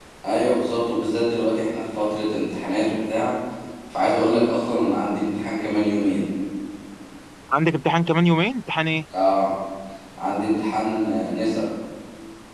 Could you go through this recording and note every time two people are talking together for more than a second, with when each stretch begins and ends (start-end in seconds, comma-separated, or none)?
none